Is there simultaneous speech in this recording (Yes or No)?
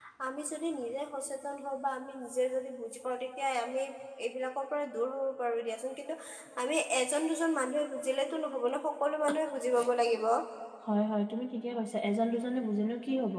No